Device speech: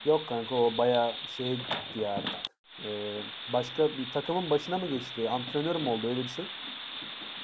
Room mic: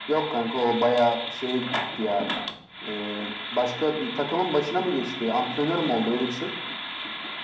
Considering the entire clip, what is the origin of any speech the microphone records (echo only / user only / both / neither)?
echo only